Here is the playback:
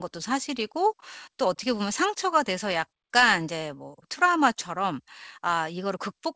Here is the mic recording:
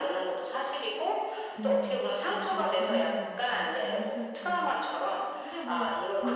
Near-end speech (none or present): present